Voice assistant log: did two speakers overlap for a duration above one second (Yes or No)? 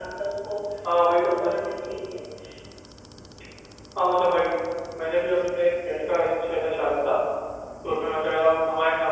No